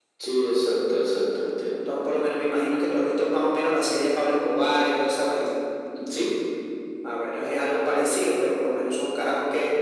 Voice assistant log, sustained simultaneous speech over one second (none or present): none